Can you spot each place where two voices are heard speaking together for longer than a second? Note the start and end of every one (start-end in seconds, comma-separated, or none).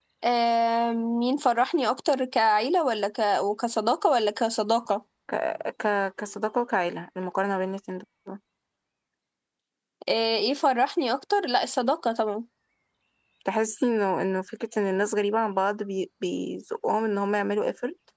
none